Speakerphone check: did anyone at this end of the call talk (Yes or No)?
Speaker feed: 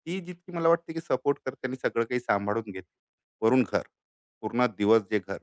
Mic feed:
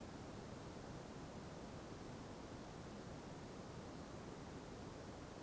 No